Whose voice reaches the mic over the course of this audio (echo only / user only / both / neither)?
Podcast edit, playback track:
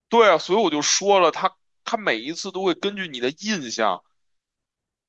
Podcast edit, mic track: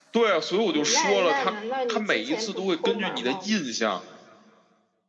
both